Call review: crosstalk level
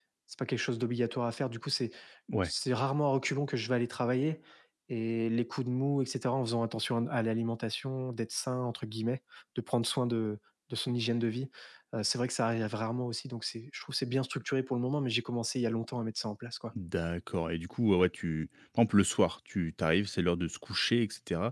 none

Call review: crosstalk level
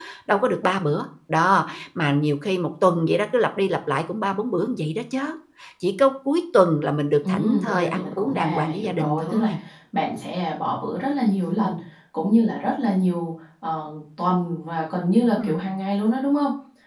present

